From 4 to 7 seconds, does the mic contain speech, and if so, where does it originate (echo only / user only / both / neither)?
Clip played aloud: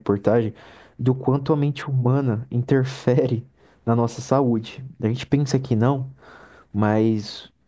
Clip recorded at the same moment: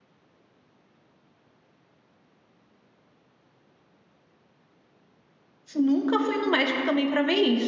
user only